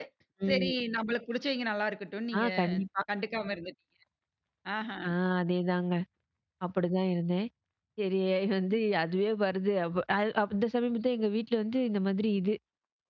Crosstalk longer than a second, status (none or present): none